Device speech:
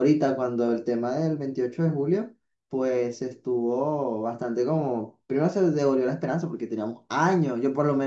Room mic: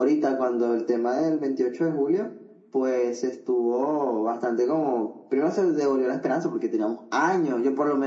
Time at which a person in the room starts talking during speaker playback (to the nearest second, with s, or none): none